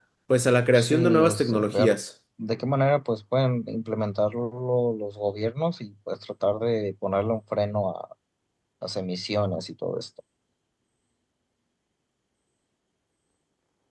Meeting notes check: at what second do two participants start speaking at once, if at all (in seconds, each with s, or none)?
0.7 s